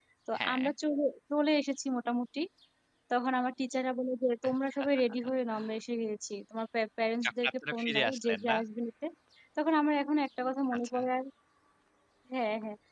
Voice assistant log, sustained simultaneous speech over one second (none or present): present